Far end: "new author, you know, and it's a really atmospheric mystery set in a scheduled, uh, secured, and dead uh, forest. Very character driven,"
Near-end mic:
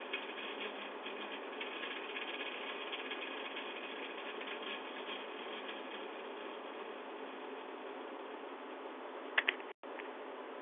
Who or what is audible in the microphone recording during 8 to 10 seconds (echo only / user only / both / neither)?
neither